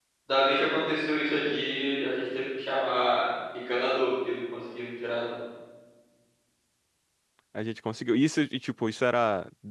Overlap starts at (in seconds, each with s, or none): none